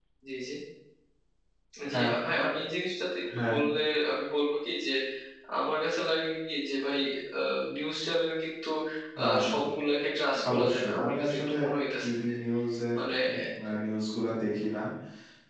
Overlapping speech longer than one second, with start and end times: 10.3-11.6

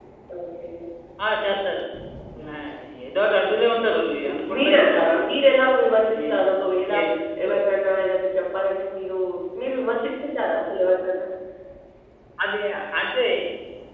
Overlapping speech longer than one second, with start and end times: 4.0-5.2

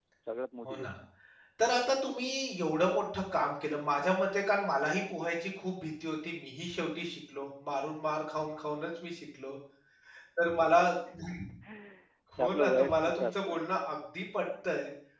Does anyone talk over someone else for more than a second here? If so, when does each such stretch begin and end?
12.4-13.6

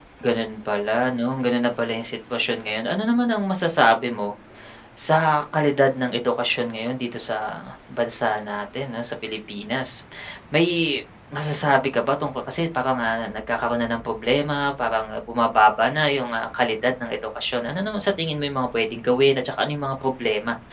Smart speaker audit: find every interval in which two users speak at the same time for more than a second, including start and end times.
none

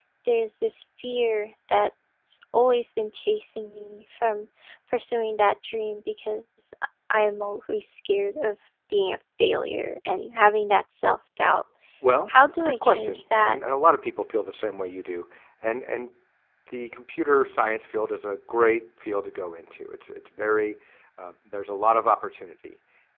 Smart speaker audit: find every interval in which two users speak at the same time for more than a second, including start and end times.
12.3-13.6

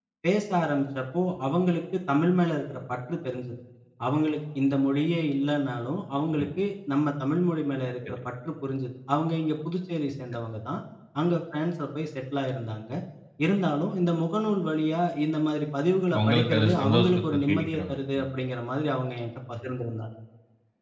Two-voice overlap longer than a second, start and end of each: 16.1-18.3

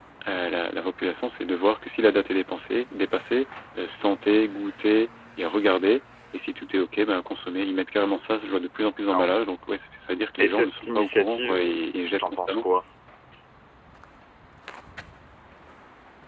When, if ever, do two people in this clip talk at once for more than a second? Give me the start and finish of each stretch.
10.4-11.8

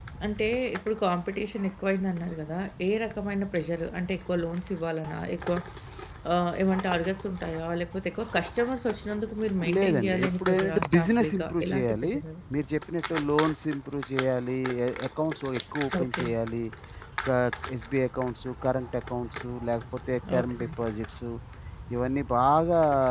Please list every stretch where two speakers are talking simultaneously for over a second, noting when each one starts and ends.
9.8-12.1

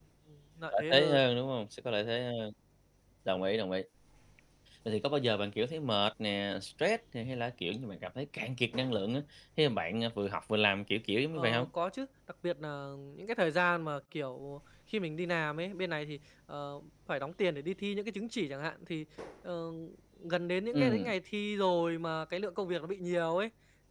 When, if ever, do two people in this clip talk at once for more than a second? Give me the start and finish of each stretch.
none

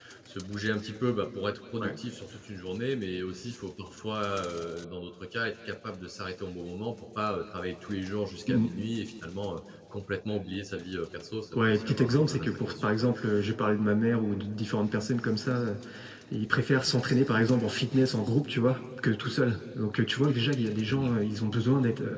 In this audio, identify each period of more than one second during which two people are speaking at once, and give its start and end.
11.5-13.0

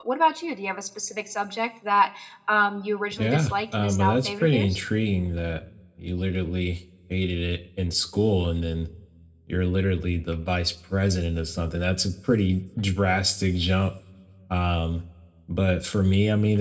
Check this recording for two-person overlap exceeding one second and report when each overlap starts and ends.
3.2-4.8

